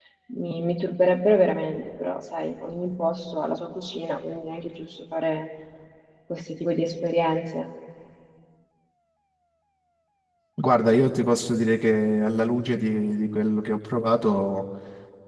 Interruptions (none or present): none